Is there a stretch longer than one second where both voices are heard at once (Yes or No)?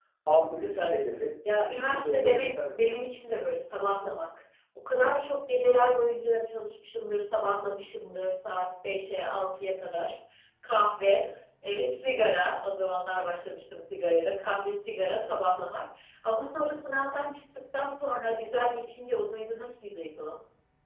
Yes